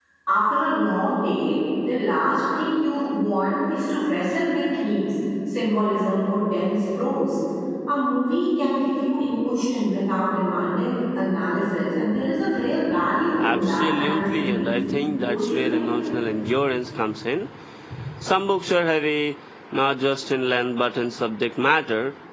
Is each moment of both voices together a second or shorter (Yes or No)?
No